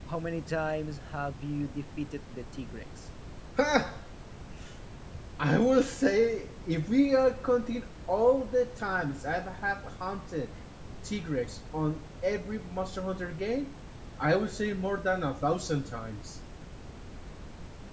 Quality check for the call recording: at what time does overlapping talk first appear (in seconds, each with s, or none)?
none